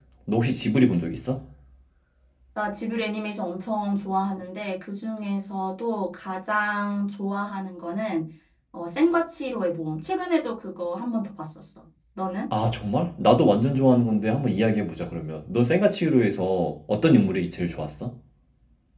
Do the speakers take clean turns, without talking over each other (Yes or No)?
Yes